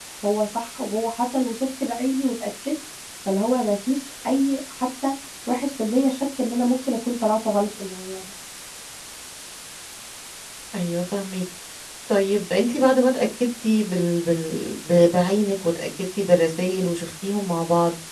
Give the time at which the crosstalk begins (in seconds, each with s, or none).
none